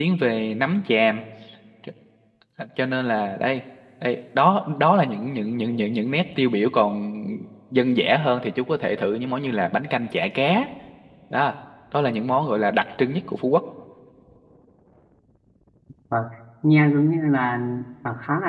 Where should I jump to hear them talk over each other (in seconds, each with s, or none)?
none